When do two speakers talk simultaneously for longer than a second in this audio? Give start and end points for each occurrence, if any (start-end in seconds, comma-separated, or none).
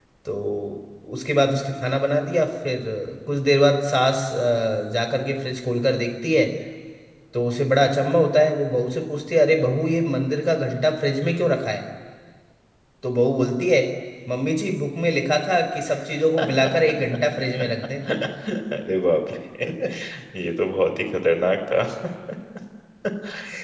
none